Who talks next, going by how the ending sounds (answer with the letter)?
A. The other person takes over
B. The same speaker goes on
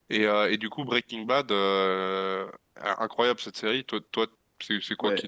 A